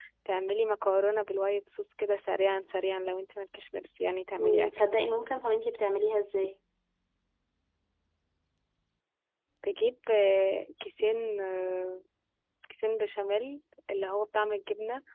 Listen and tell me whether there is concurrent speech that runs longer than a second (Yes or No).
No